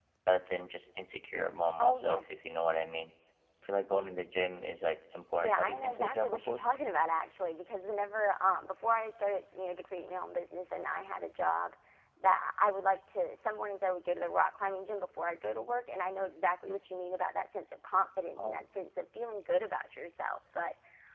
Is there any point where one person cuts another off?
Yes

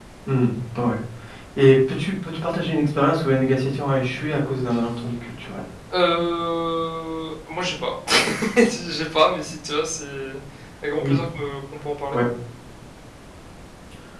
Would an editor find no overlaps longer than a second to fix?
Yes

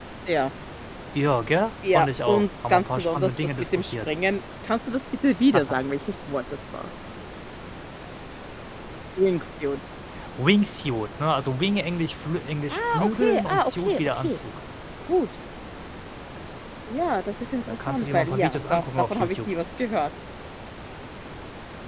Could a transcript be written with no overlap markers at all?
No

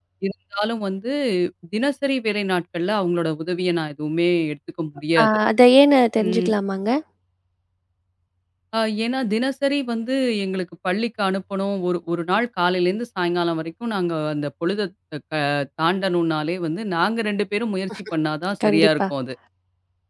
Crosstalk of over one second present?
No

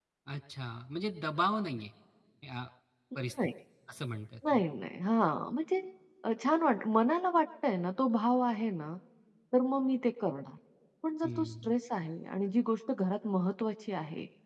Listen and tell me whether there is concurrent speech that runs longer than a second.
No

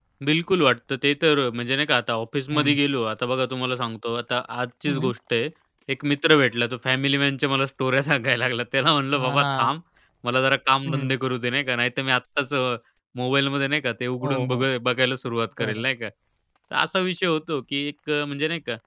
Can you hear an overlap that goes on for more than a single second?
No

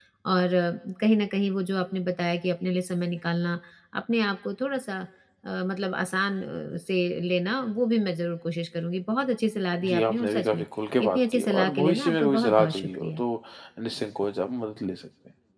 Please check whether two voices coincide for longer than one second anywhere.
Yes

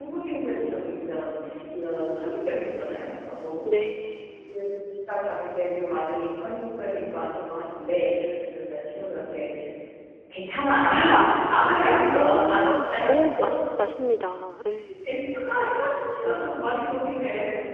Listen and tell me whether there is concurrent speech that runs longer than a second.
Yes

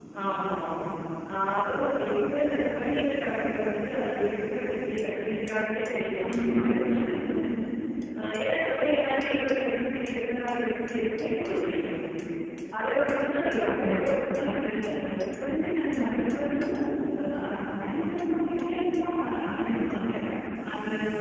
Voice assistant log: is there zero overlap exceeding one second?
Yes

